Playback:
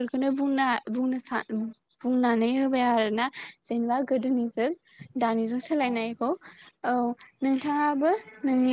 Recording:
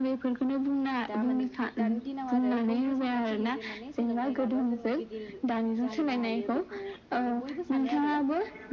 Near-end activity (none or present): present